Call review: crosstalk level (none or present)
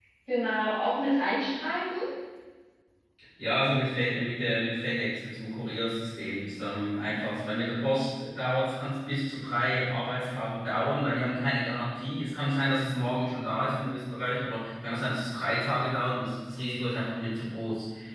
none